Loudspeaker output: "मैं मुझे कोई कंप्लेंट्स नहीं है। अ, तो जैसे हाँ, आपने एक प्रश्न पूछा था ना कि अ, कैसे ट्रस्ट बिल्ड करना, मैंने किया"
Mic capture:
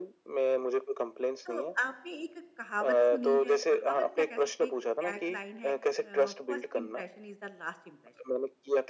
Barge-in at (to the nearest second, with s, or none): 1 s